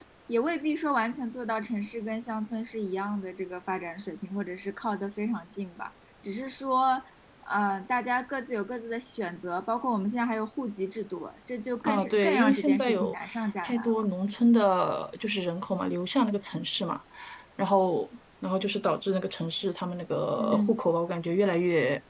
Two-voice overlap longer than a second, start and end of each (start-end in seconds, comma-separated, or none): 11.8-13.2